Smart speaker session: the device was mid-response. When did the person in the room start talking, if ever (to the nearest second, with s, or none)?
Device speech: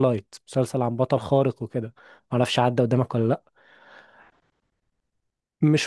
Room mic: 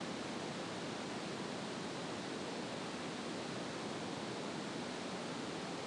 none